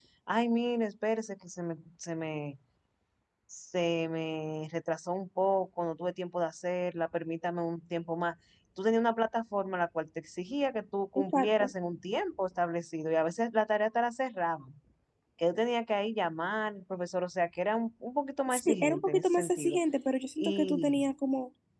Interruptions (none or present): present